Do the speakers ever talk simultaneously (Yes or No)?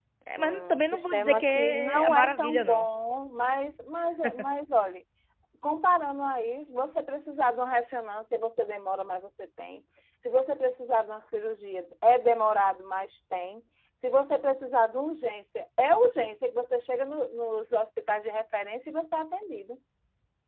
Yes